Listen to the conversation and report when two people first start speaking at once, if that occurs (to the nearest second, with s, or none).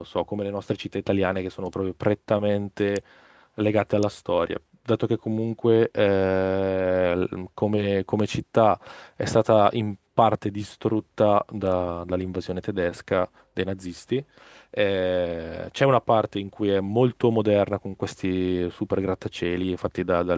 none